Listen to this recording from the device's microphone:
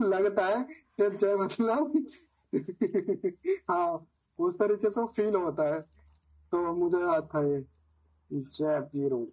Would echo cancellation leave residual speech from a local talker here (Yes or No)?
No